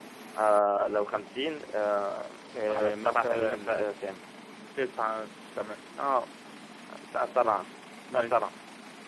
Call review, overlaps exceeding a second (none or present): present